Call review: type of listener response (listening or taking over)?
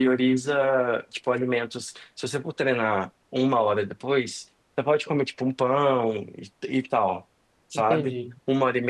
listening